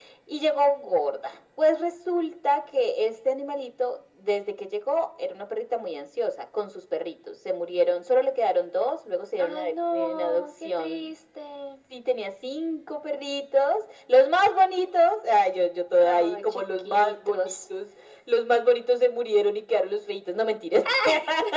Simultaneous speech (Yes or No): Yes